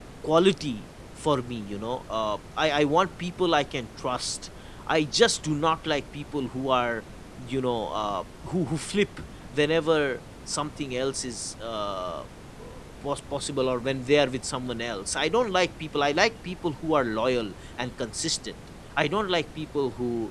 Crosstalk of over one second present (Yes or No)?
No